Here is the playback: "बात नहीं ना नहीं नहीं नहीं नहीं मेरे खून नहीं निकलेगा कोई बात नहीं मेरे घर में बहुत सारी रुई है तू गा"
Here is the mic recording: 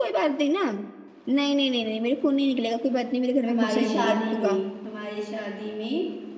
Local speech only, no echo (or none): हमारी शादी में हमारी शादी में